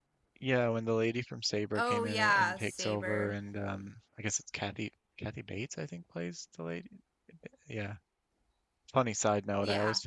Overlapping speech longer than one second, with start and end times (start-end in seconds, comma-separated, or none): 1.8-3.3